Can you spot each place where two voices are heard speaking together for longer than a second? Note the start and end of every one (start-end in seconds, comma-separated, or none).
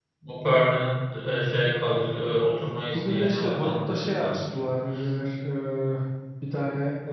2.9-4.4